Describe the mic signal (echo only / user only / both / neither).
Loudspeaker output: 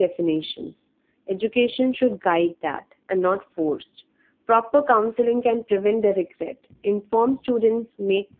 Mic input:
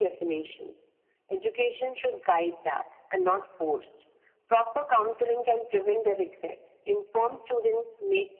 echo only